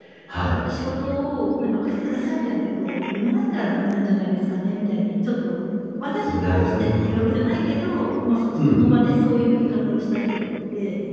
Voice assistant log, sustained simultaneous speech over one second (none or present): present